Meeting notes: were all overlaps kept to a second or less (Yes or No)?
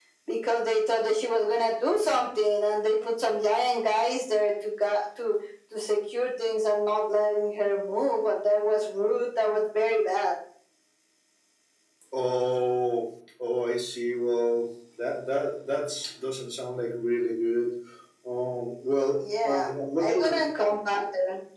Yes